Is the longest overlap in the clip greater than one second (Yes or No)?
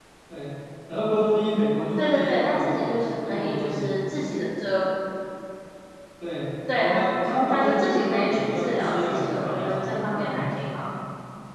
Yes